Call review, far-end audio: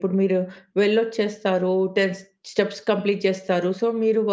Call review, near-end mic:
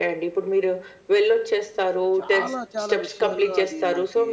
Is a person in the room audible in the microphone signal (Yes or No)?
Yes